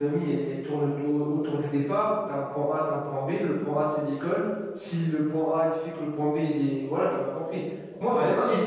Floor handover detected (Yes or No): Yes